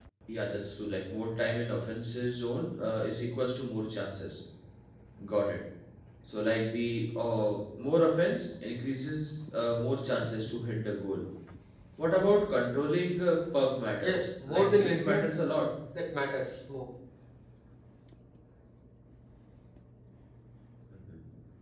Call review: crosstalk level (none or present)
present